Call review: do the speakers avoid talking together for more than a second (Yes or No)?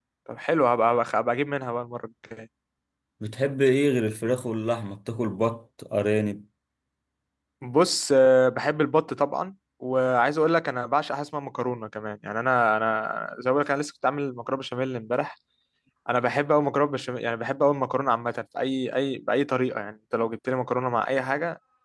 Yes